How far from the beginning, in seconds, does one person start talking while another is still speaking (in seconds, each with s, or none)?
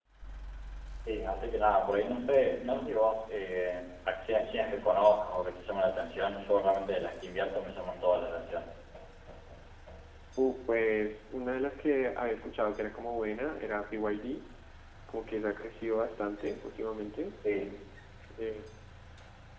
none